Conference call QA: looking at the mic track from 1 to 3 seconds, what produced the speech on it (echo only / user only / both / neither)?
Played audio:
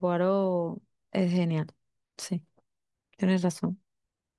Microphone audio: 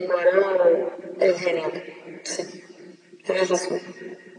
echo only